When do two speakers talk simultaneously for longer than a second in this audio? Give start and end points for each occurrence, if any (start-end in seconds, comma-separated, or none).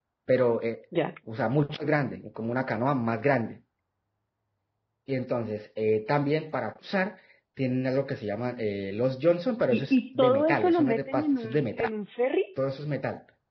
9.7-11.9